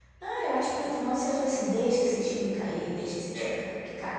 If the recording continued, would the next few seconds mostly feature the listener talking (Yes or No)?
Yes